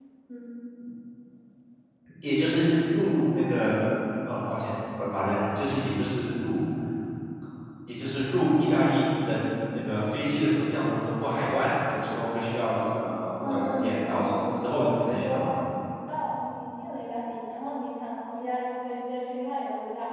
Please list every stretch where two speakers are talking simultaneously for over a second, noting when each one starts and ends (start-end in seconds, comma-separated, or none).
13.4-15.5